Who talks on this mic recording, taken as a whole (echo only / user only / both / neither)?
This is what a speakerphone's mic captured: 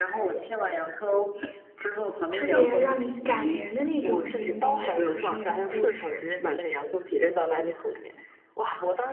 both